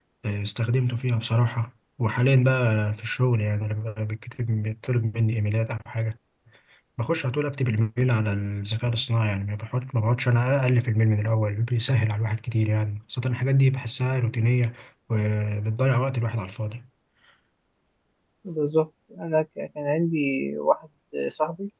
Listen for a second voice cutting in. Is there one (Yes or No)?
No